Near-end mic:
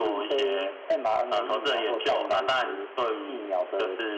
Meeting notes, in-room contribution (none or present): none